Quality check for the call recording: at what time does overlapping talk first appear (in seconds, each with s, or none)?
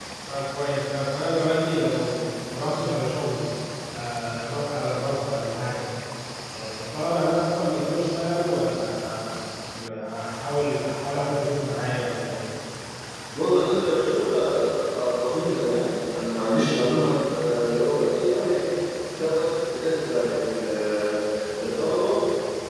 none